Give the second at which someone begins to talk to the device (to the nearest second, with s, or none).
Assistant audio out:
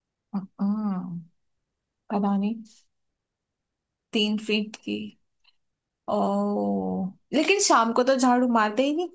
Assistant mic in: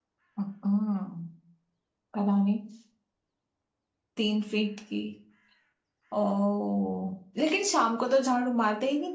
none